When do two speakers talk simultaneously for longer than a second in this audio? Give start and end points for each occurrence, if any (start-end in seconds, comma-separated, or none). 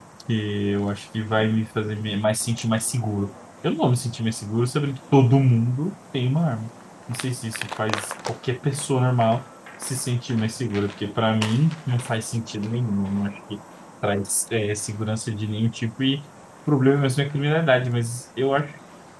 none